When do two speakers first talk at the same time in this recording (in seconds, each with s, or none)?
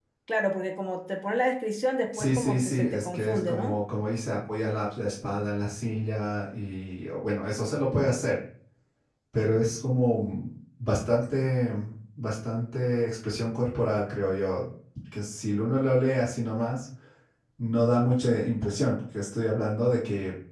2.1 s